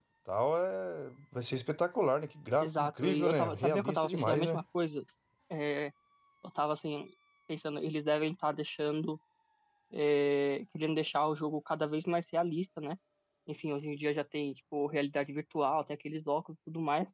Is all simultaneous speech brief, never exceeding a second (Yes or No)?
No